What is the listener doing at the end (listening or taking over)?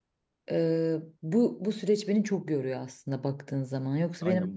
taking over